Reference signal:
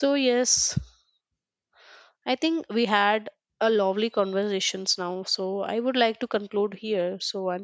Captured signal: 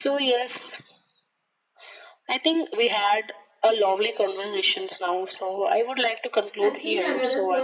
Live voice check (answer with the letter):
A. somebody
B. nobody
A